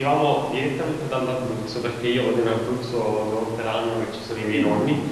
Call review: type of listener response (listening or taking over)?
listening